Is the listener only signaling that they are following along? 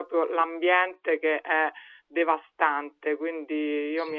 No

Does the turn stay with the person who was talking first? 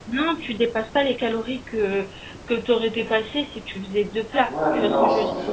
No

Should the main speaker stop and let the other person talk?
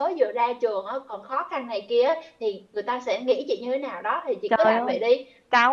Yes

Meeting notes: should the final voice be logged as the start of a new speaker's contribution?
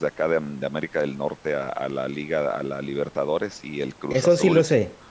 Yes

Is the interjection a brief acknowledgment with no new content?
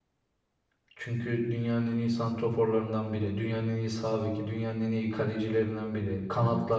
No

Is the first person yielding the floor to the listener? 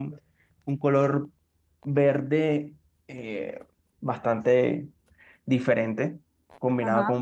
No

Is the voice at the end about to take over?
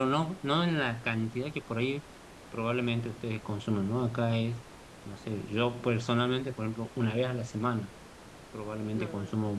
No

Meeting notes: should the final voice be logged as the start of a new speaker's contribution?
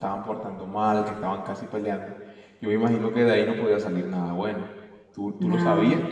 No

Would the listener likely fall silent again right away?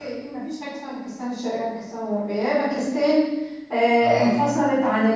Yes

